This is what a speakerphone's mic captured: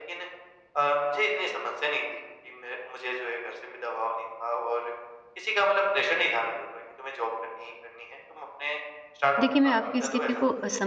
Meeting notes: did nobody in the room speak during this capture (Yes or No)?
No